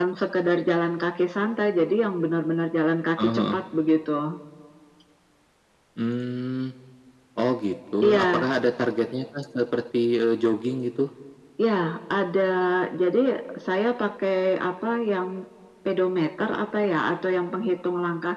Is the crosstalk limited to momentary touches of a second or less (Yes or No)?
Yes